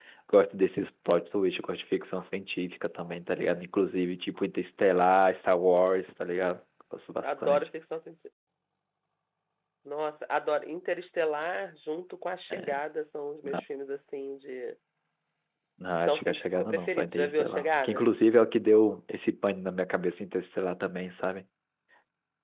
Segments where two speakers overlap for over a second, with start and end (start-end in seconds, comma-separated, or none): 15.9-18.0